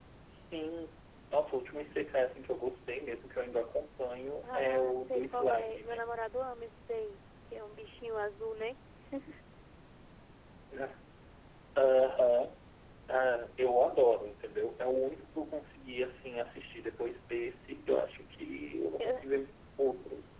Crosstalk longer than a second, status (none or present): present